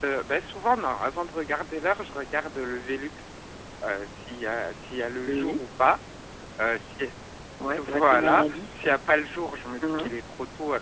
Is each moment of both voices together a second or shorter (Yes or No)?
No